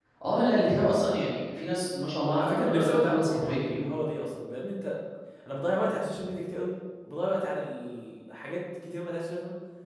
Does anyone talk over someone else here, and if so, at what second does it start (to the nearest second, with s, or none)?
2 s